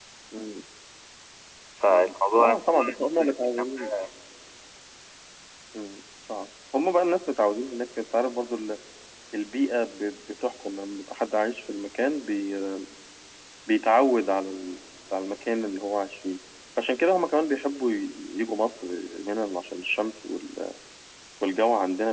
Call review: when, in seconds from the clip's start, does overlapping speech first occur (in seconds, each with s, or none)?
1.9 s